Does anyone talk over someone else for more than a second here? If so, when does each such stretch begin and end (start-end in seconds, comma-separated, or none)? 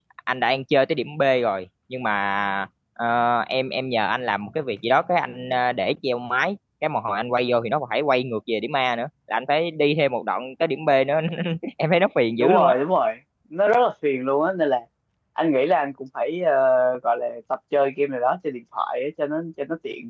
none